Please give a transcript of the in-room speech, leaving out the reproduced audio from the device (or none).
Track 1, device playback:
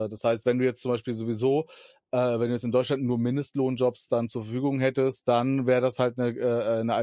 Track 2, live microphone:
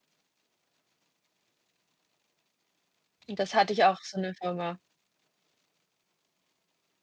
Das hatte ich auch, so eine Firma.